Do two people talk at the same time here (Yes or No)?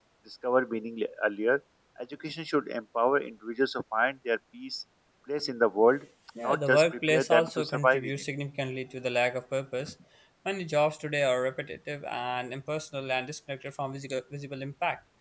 Yes